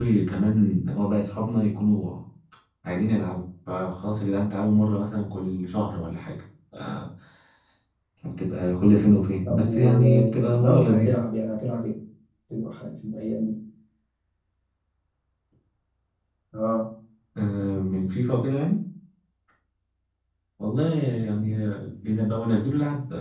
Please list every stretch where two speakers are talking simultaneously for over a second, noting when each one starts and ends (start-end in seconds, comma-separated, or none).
9.4-11.2